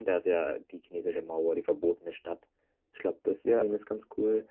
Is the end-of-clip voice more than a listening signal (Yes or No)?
No